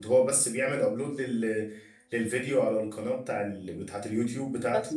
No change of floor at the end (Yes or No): Yes